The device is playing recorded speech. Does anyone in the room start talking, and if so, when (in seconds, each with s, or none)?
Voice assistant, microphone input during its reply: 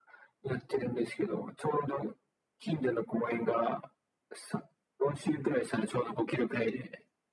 none